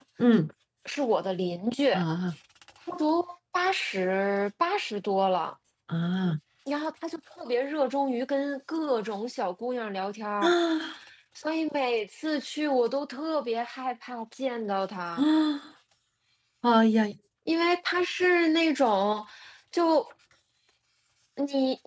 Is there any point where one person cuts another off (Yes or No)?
No